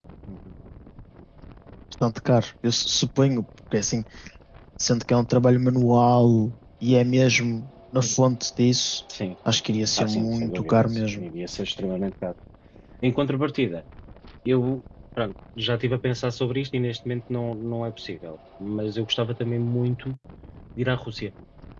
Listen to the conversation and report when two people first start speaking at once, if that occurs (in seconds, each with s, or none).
10.0 s